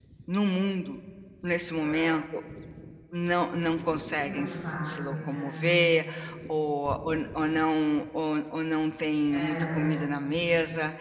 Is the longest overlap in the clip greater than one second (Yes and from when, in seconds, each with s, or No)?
Yes, from 4.2 s